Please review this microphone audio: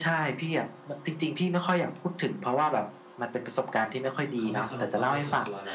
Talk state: both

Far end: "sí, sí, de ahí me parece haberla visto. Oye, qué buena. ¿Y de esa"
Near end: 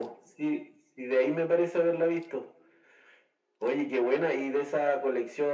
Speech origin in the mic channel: echo only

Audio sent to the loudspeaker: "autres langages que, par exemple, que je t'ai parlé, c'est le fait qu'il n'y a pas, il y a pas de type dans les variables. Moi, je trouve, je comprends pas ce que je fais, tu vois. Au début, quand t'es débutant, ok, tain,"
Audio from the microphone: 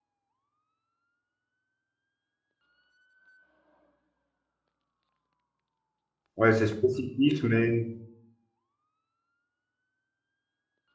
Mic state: user only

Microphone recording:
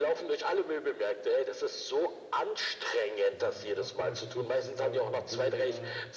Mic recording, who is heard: both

